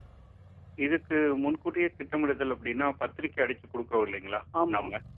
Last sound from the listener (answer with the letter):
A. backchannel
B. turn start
A